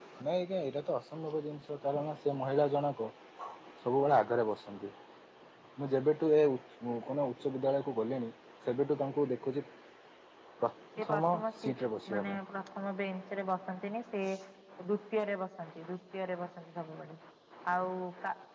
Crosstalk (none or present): present